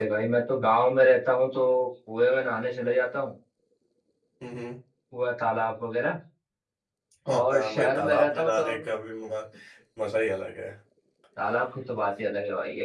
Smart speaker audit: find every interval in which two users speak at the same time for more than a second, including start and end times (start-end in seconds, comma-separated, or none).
7.4-8.7